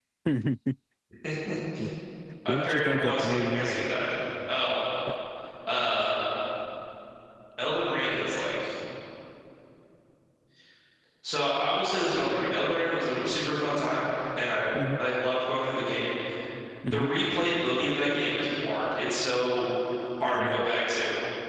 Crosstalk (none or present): present